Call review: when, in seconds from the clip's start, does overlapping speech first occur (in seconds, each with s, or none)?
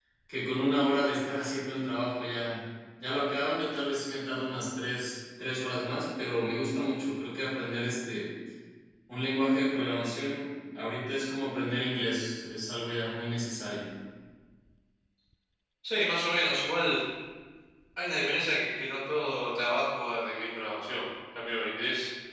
none